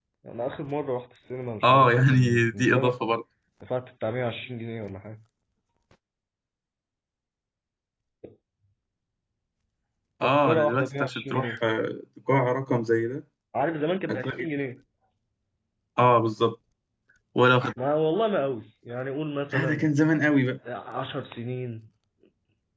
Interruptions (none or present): present